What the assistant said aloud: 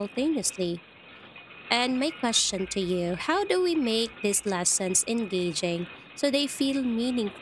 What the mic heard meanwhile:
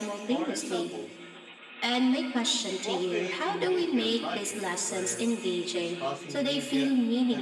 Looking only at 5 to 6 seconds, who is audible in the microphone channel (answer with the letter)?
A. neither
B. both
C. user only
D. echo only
B